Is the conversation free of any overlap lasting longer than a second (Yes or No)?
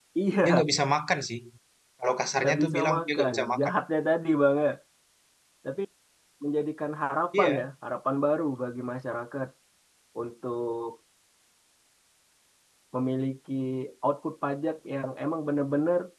No